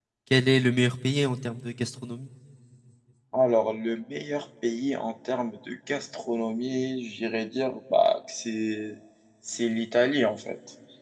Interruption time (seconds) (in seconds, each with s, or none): none